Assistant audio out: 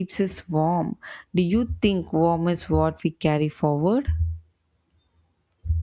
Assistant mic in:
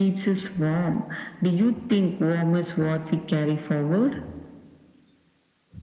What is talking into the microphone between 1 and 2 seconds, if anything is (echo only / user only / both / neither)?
echo only